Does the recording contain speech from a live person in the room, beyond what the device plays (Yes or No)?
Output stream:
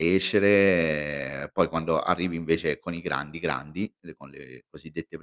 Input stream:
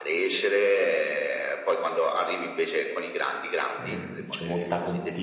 Yes